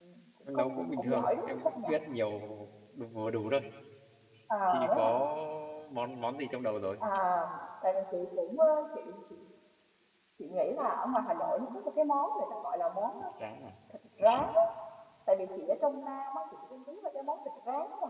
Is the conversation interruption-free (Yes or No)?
No